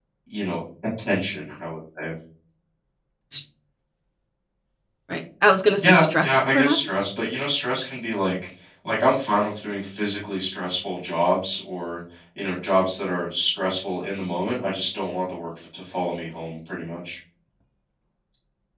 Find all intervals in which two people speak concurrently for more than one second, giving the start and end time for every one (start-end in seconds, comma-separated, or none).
5.8-7.1